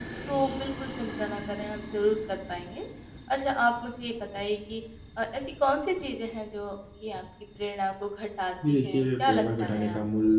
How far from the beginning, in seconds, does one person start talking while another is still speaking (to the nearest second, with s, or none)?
9 s